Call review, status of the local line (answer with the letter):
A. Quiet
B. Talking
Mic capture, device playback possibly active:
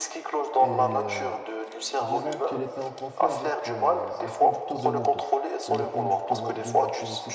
B